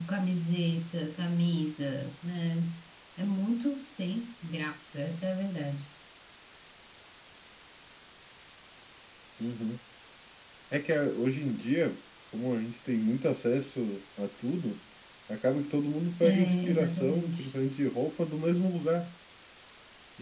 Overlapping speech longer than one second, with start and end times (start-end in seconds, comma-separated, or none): 16.2-17.5